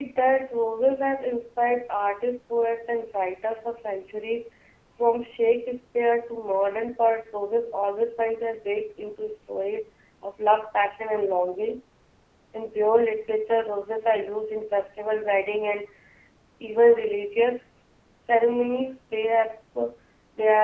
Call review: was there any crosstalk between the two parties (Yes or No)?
No